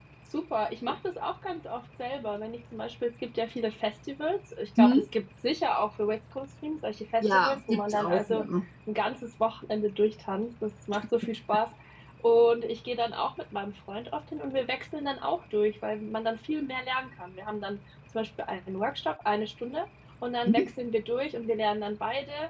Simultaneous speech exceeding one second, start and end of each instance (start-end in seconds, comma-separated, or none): 7.2-8.4